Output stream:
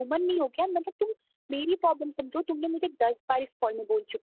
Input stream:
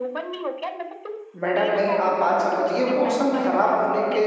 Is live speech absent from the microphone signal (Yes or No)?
No